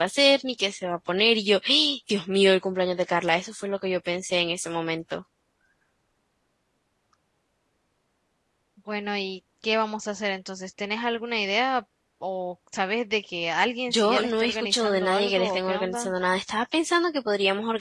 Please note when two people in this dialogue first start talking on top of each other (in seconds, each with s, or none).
13.9 s